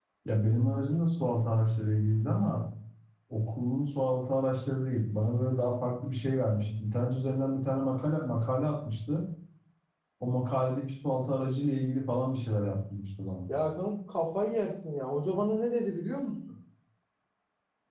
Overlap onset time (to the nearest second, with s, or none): none